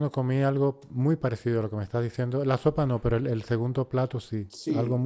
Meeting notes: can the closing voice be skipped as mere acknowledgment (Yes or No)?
No